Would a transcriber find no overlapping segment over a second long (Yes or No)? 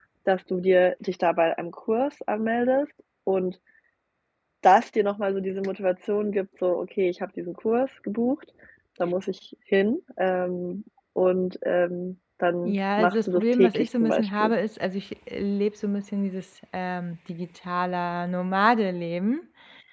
No